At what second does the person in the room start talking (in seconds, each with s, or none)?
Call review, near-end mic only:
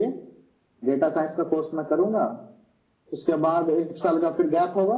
none